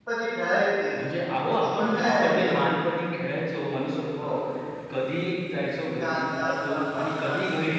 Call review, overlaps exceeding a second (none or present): present